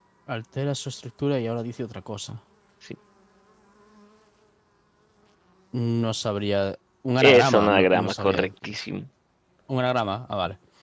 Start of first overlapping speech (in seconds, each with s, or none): 7.2 s